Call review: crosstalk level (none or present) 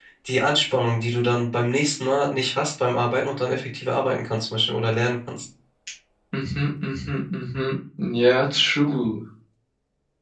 none